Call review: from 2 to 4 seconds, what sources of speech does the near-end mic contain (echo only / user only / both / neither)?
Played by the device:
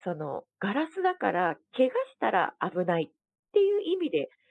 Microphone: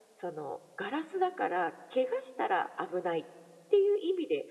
echo only